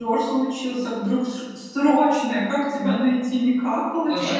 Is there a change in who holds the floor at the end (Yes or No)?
Yes